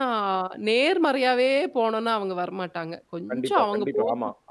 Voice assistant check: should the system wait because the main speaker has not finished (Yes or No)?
No